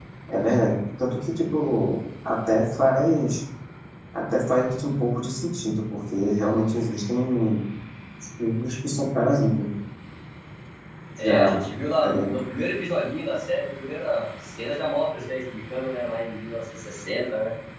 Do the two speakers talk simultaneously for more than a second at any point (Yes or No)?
No